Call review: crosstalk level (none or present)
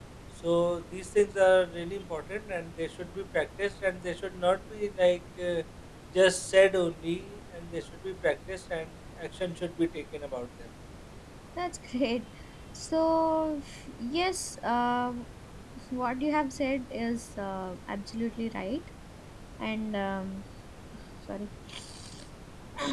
none